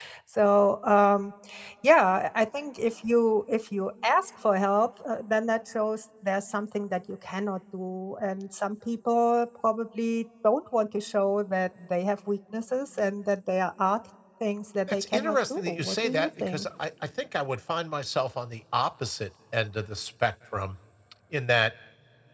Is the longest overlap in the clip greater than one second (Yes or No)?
Yes